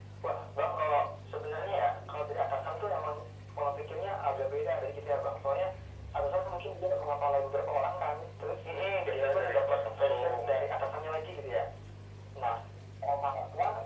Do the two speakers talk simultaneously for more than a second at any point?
Yes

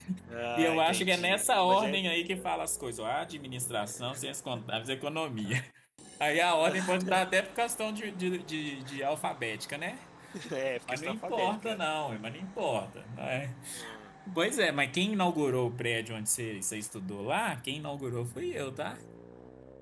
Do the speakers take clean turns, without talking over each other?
No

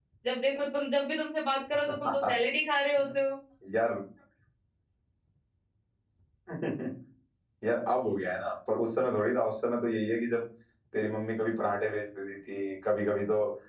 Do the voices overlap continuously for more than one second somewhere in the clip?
No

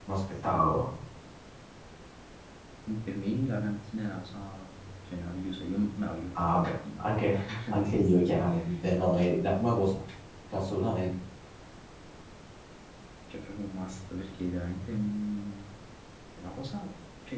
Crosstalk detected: Yes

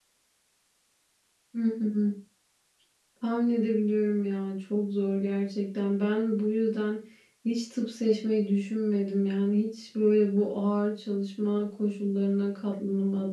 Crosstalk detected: No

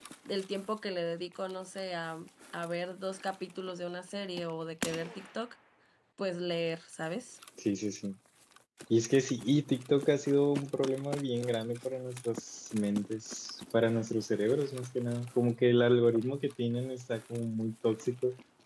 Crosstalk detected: No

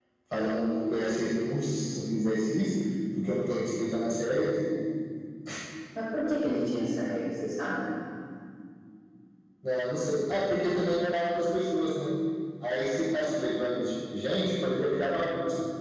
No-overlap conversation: Yes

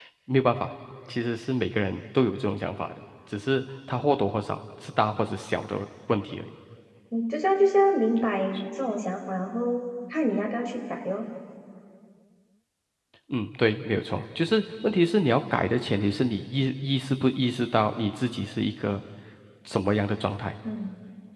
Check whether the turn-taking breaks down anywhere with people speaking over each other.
No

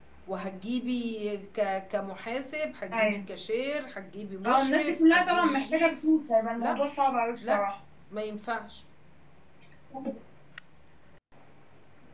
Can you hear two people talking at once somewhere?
Yes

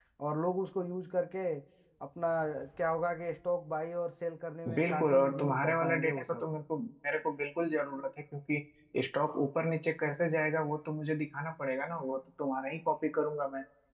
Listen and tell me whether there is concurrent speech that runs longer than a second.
Yes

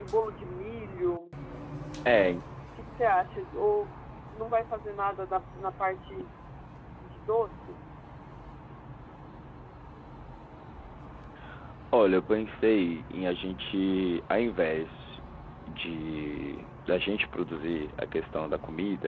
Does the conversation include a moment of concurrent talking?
No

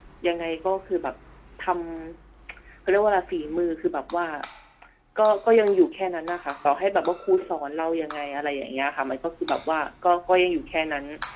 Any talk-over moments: No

